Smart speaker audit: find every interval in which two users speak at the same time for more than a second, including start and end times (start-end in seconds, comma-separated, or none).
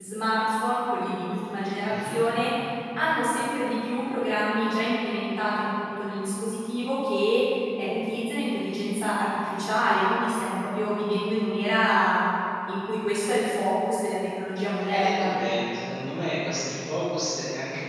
none